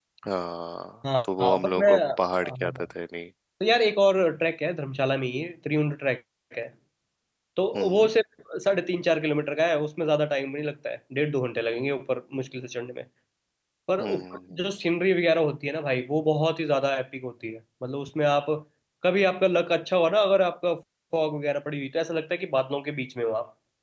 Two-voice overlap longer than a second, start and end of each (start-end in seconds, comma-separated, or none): 1.2-2.8